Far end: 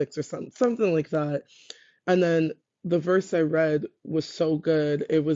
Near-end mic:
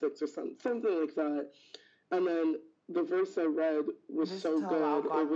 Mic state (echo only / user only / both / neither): both